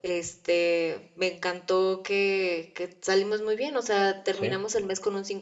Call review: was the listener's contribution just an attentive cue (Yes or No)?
Yes